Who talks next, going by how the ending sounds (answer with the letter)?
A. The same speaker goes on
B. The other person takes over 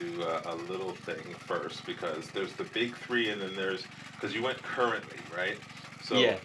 A